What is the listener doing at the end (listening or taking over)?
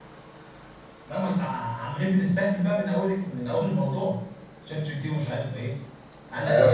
taking over